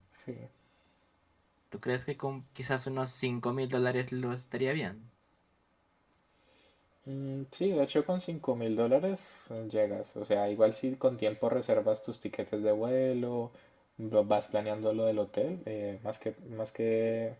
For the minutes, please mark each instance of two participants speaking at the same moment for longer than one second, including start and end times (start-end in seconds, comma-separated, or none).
none